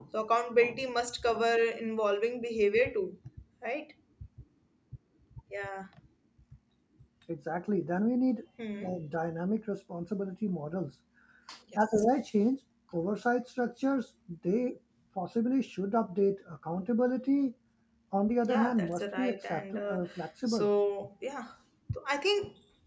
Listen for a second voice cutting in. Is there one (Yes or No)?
Yes